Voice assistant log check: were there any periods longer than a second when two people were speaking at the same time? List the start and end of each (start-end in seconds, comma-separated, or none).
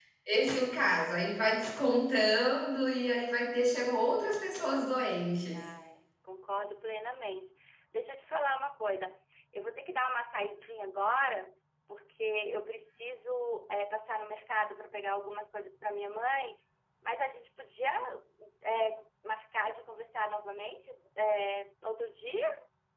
none